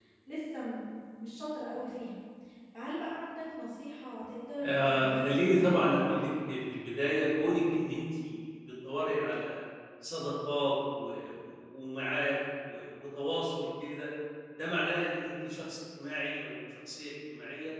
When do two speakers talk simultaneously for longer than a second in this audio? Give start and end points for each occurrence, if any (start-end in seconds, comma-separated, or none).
4.6-6.0